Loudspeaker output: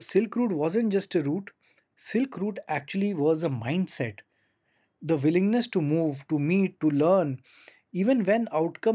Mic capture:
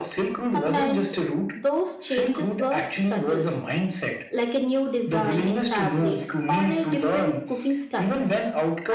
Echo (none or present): present